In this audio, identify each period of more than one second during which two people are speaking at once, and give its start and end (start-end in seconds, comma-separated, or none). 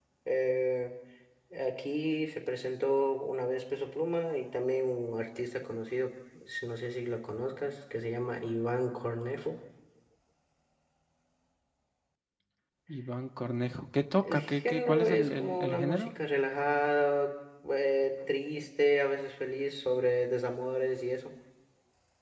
14.2-16.1